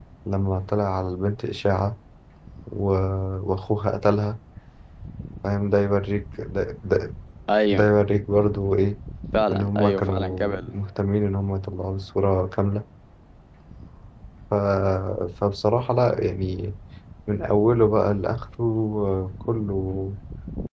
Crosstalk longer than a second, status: present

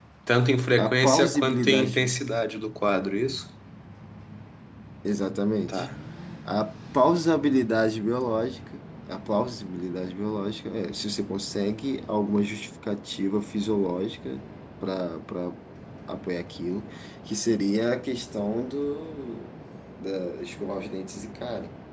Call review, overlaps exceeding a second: present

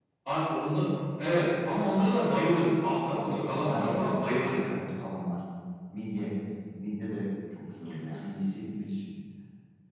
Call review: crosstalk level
present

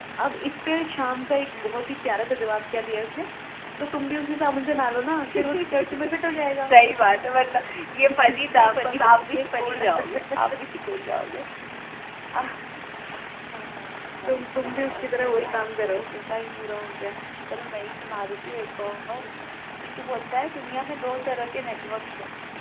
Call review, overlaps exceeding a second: present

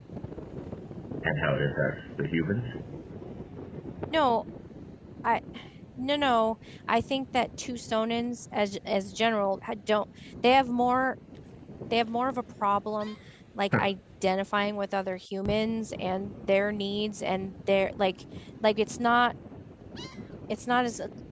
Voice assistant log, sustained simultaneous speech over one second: none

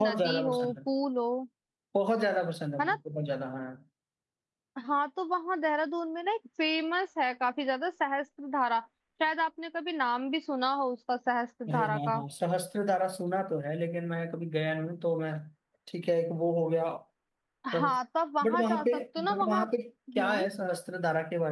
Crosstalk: present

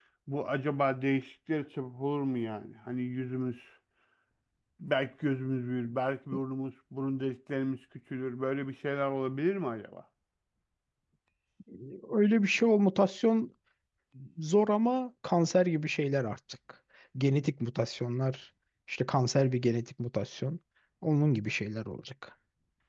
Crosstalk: none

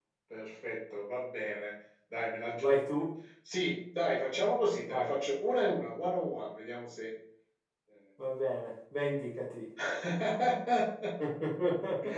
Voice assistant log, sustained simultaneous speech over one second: none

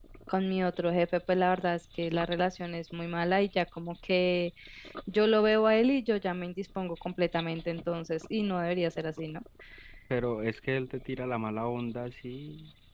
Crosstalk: none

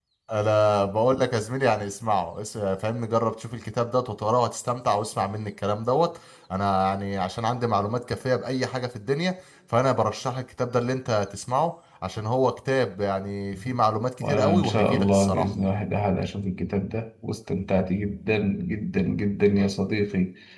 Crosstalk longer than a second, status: present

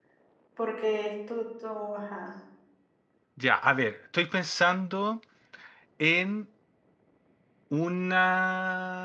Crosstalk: none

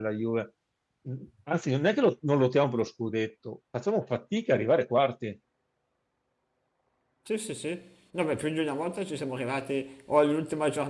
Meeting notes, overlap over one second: none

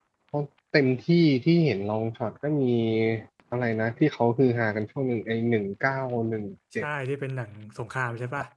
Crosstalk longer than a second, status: none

